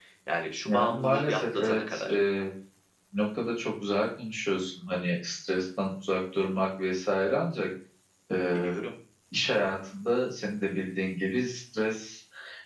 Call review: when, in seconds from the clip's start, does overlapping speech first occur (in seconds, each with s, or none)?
0.7 s